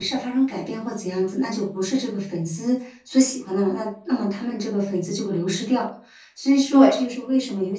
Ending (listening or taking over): listening